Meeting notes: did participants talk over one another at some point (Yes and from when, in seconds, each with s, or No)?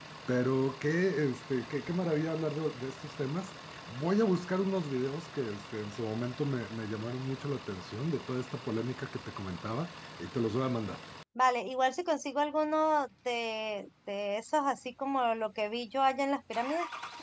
No